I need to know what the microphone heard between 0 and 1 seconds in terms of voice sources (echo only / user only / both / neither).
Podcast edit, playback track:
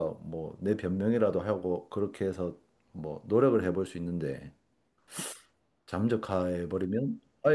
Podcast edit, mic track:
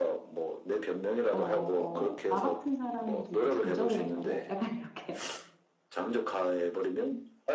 echo only